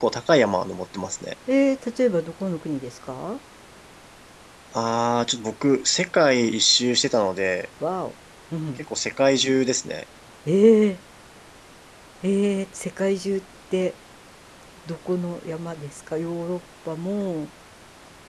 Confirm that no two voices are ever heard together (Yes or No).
Yes